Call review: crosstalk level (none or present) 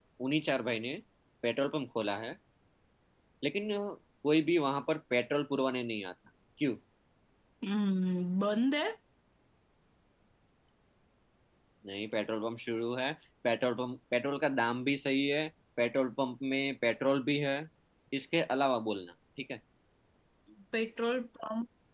none